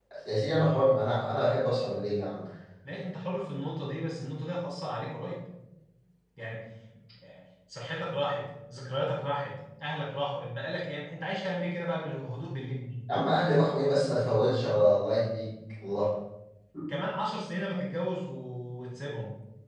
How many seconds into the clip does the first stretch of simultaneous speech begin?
none

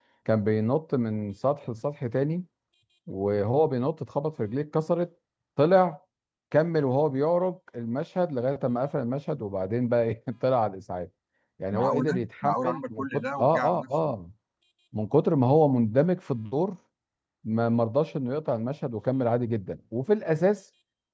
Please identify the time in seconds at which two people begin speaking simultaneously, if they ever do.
11.7 s

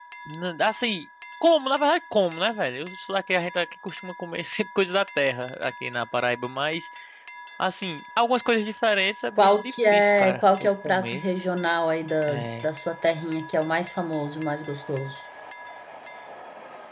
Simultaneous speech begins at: 9.4 s

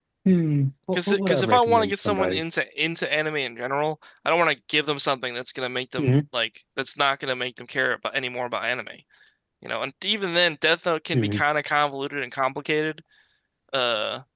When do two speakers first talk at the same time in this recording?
0.9 s

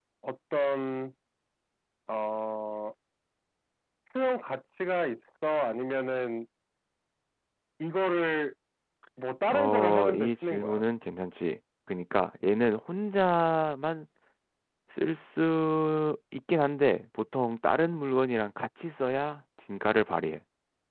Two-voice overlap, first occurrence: 9.5 s

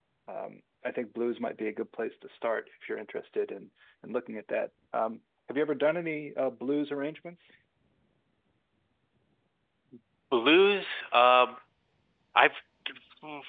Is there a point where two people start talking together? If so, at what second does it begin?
none

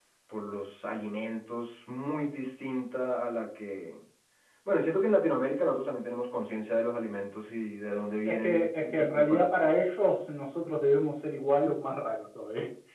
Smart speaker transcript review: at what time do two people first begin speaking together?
8.2 s

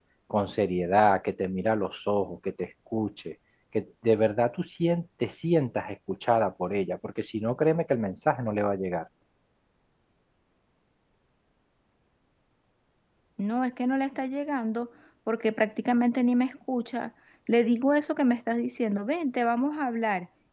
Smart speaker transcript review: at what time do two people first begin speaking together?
none

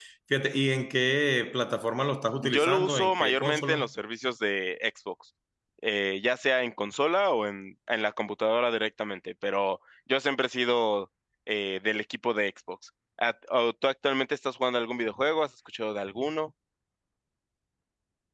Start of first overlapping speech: 2.4 s

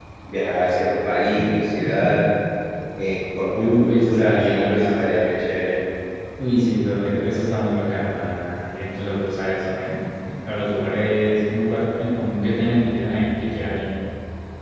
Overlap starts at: 3.5 s

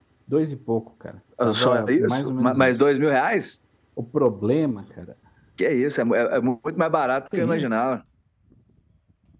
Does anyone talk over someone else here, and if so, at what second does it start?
1.4 s

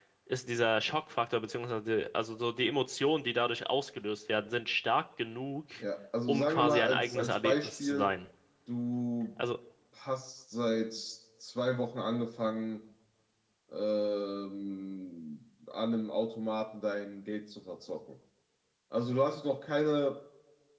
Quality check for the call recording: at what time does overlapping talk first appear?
6.3 s

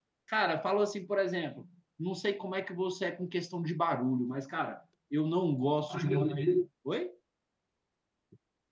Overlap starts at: none

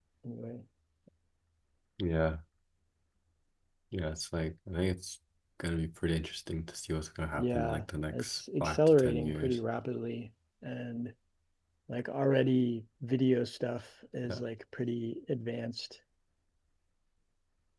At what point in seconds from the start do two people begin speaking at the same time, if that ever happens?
7.4 s

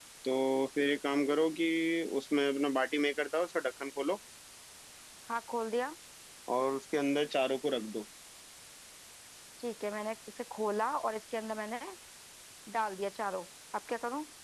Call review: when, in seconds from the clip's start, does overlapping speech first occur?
none

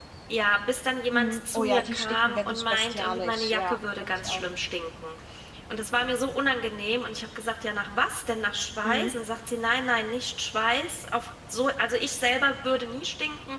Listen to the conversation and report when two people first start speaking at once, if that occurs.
1.1 s

